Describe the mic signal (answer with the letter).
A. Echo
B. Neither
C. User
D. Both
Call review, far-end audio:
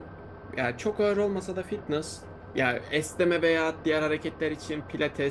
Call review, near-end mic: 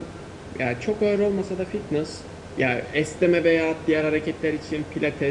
A